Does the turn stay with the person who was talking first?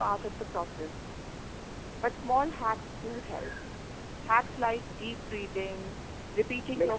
Yes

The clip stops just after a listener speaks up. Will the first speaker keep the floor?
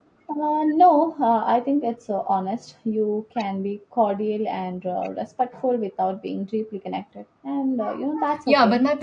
No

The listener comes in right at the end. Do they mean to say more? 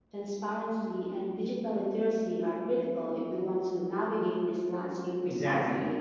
Yes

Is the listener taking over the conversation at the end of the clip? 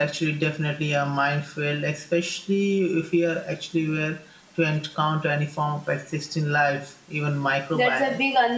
Yes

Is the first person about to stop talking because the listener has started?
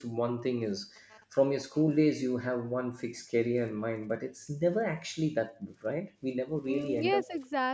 Yes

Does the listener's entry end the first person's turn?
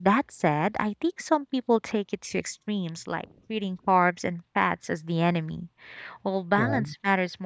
No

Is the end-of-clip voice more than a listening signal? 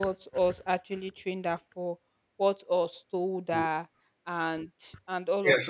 Yes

